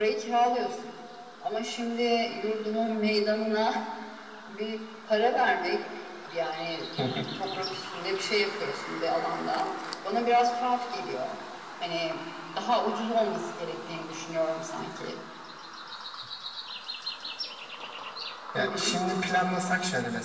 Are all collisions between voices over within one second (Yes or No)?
Yes